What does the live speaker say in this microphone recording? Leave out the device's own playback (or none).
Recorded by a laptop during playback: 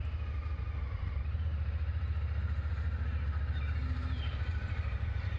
none